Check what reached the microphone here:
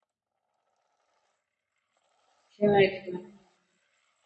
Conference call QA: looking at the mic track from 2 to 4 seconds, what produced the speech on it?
user only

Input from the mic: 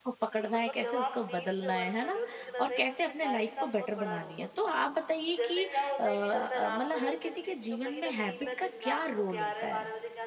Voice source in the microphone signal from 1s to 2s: both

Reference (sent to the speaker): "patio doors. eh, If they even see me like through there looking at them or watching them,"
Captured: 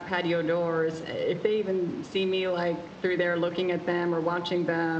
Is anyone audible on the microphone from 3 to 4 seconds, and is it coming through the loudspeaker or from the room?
echo only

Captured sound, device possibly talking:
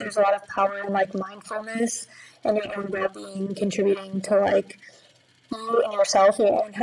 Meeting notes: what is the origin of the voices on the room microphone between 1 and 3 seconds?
echo only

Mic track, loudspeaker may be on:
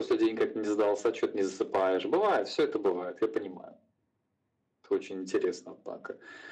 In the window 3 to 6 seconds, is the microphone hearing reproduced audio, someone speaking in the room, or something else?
echo only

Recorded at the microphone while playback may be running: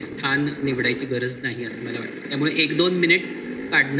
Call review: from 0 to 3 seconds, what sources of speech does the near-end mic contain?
echo only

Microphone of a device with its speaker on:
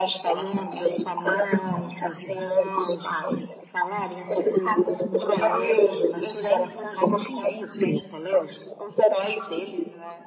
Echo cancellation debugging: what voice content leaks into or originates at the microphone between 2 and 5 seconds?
echo only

